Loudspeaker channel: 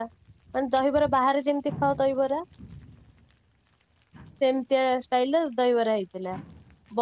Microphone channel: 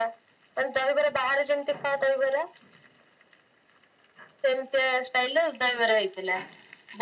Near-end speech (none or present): none